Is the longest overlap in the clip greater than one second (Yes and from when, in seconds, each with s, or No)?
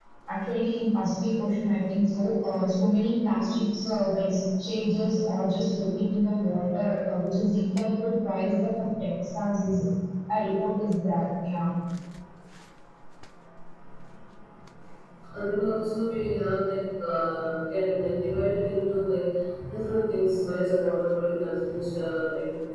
No